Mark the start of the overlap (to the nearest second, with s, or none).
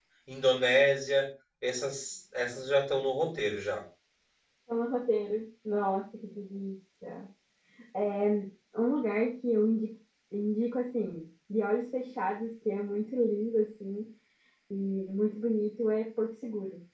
none